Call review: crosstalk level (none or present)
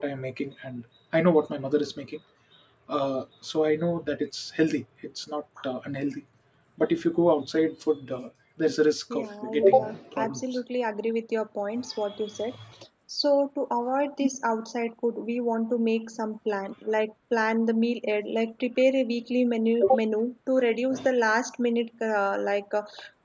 present